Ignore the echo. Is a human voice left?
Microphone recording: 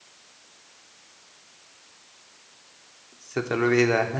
Yes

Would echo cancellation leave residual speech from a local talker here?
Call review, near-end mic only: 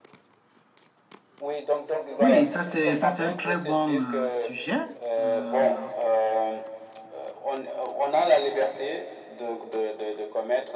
Yes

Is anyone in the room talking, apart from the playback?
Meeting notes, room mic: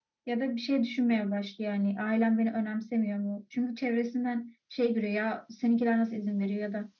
No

